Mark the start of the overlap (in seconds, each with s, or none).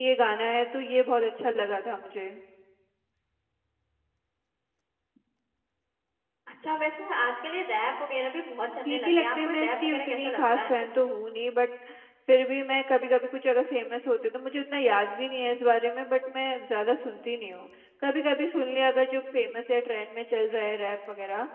8.8 s